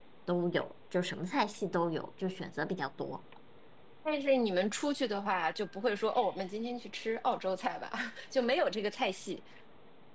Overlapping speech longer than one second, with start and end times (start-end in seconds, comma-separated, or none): none